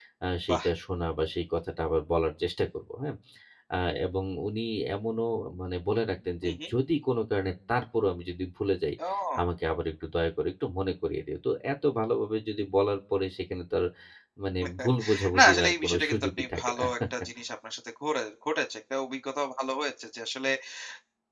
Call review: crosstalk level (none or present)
present